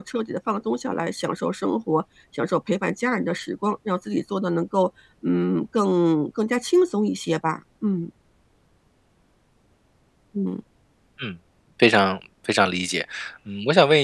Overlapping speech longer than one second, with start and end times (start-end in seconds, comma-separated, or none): none